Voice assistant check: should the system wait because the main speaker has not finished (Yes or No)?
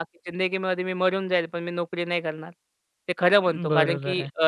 Yes